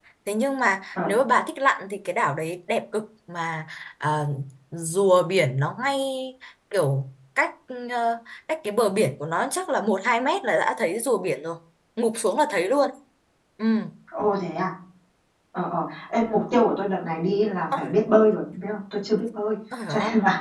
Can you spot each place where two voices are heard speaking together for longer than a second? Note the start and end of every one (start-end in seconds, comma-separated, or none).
none